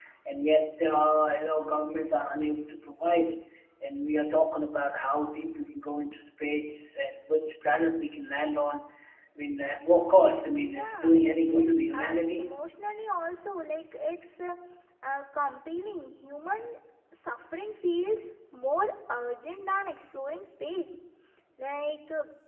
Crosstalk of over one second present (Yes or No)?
Yes